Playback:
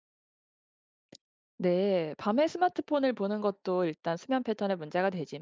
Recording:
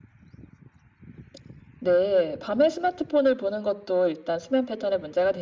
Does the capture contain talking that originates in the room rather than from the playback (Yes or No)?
No